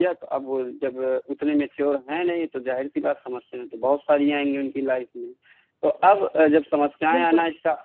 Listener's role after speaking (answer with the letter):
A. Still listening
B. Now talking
A